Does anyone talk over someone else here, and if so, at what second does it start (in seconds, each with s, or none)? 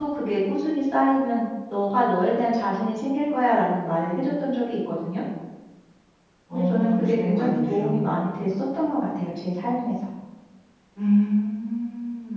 6.5 s